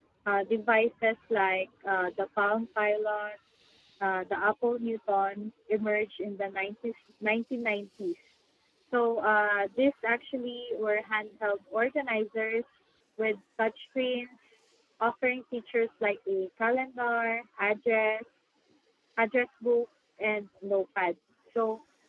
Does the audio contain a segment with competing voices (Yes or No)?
No